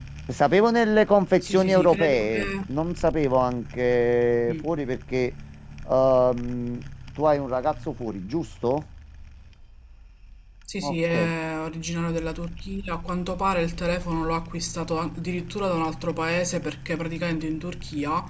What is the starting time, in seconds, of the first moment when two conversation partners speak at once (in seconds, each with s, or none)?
1.4 s